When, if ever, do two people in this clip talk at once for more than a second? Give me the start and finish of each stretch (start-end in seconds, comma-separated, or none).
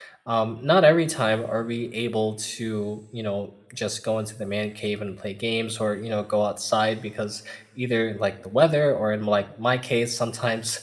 none